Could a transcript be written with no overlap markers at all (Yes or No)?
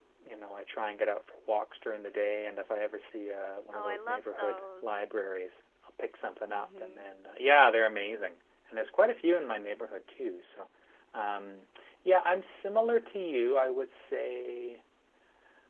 No